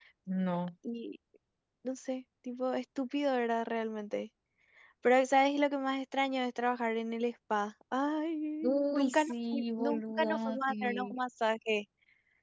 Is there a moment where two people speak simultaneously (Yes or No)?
Yes